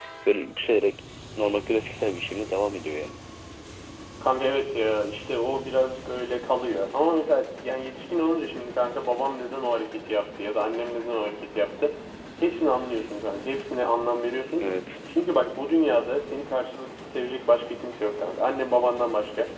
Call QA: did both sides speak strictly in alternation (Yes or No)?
Yes